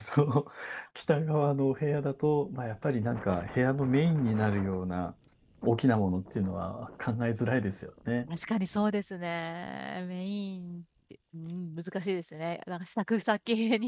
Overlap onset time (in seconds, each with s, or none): none